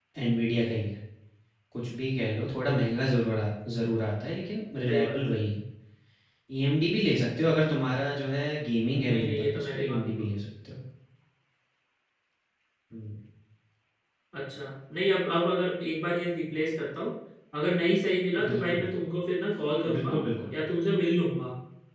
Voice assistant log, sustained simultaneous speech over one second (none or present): present